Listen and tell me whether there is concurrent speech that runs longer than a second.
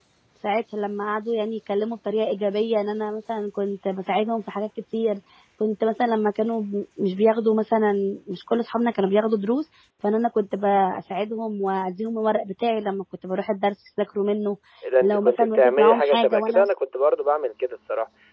Yes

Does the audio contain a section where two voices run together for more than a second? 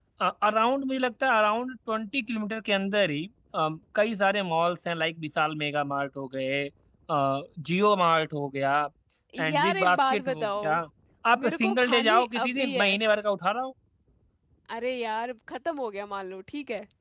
Yes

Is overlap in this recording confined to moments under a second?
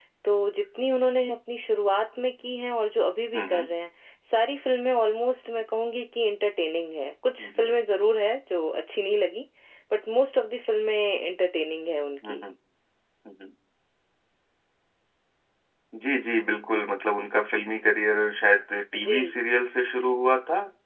Yes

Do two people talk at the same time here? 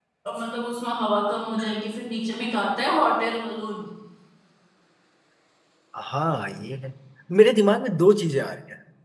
No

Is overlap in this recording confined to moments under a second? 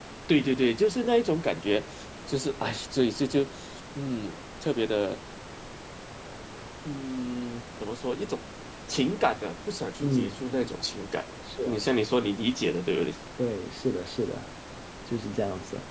Yes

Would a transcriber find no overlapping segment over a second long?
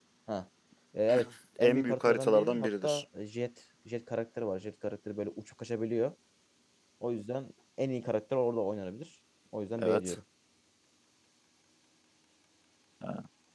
No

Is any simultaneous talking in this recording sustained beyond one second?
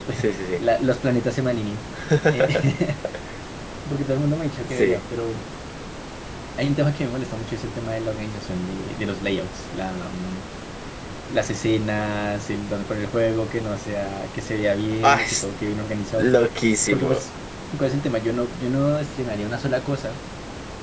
No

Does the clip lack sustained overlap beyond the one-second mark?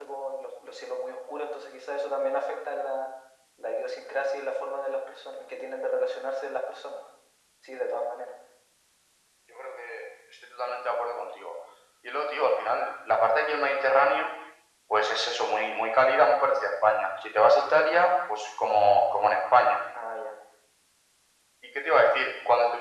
Yes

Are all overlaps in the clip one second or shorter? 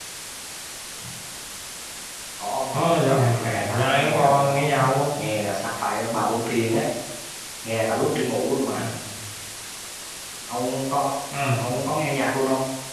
No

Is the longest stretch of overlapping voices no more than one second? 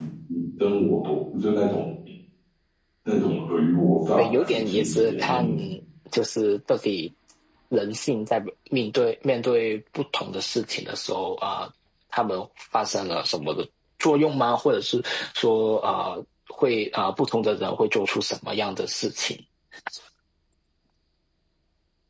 No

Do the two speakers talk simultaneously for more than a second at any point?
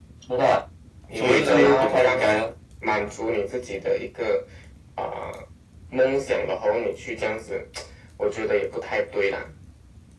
Yes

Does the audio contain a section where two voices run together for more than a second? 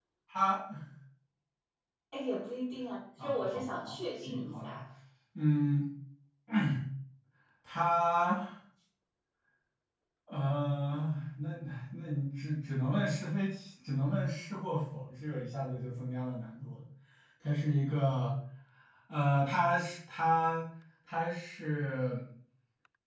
Yes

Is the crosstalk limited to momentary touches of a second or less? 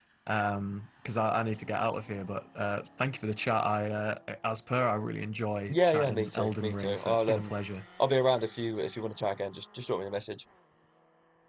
No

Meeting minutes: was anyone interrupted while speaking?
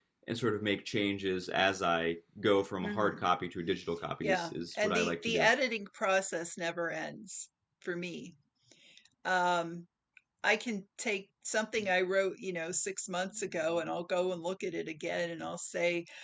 Yes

